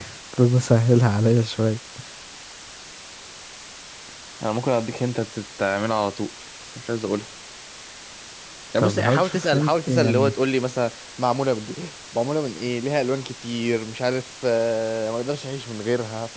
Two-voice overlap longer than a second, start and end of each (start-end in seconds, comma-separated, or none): 8.8-10.3